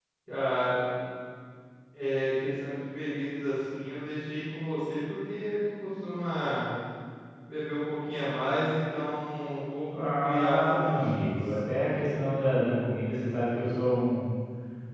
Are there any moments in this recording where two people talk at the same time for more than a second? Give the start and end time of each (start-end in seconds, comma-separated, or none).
10.0-11.3